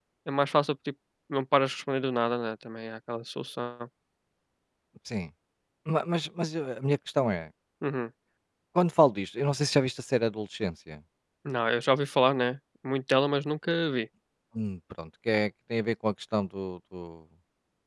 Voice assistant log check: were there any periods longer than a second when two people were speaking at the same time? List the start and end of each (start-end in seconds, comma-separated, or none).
none